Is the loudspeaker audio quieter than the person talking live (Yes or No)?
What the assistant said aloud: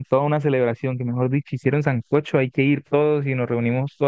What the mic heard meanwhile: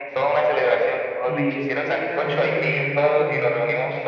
No